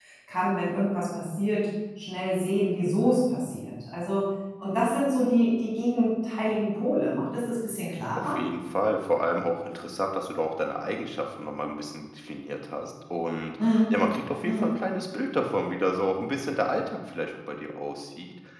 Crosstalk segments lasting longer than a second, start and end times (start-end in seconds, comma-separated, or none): none